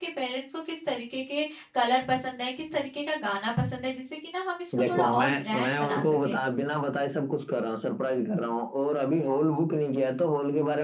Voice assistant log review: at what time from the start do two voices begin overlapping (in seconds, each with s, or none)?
4.7 s